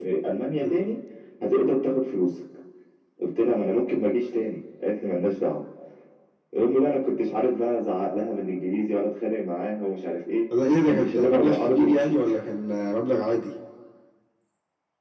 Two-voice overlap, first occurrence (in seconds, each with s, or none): 10.8 s